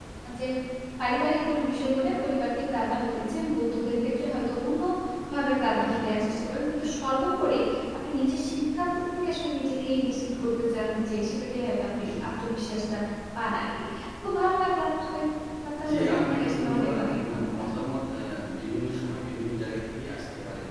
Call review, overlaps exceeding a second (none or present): present